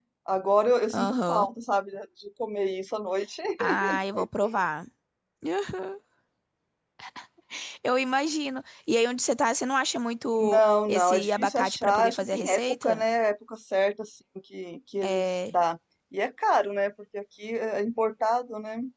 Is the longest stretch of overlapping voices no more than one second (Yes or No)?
No